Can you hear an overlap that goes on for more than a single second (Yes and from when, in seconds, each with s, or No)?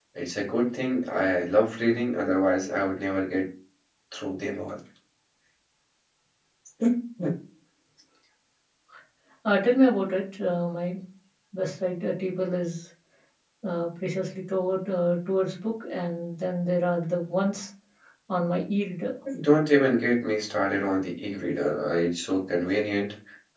No